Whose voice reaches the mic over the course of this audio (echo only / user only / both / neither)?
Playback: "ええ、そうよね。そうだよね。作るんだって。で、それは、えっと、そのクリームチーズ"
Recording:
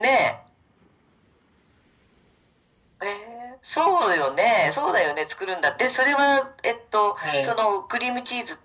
both